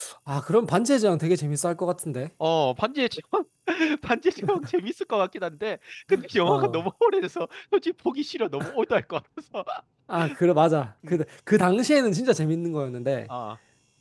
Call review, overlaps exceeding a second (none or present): none